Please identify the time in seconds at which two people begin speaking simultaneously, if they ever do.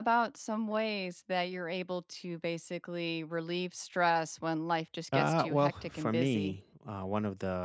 5.1 s

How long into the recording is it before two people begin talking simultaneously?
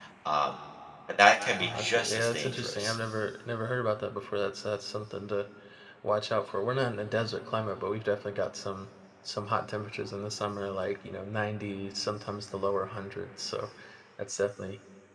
1.6 s

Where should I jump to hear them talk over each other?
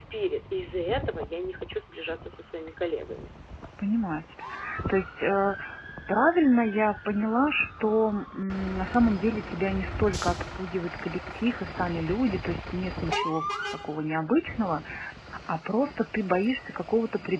none

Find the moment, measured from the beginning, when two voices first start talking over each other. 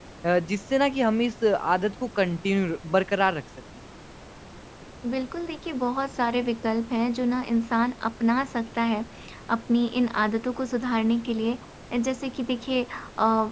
none

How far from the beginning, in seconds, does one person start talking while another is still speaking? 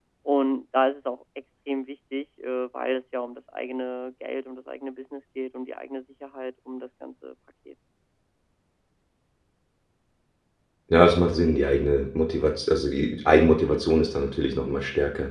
none

